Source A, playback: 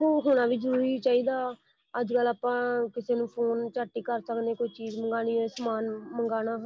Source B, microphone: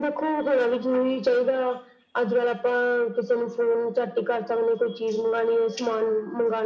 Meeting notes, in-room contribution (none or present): none